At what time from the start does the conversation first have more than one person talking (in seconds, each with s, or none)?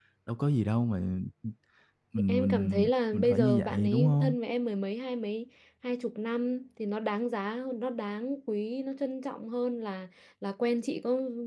2.3 s